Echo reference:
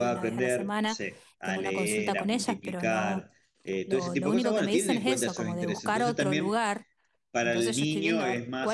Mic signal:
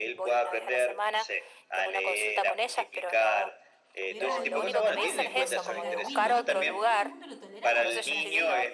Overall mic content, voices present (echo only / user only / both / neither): both